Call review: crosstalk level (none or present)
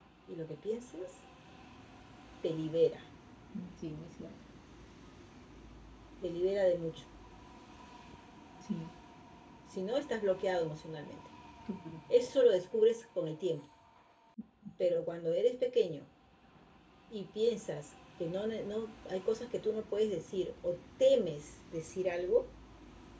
none